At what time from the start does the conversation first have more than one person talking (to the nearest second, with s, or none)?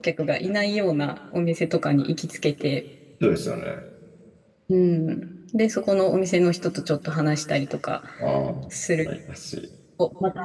none